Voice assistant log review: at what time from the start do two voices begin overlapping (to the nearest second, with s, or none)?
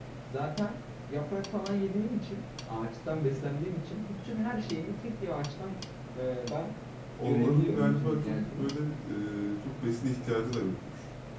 7 s